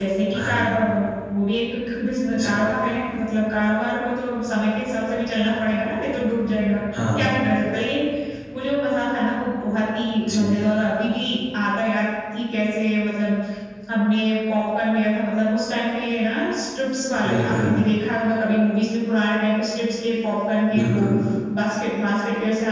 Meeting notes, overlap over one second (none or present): none